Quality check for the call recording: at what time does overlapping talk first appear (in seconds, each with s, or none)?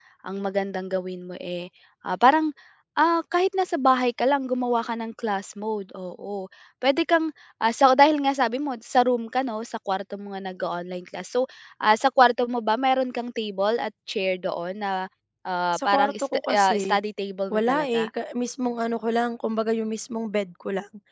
15.7 s